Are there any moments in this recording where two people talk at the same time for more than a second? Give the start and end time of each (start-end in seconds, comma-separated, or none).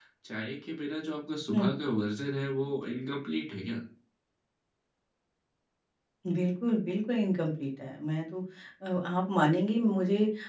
none